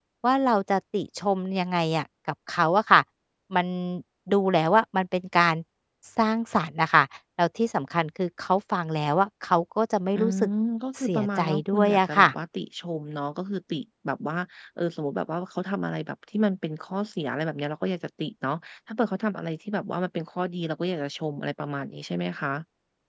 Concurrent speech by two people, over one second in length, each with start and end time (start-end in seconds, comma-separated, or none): 11.0-12.3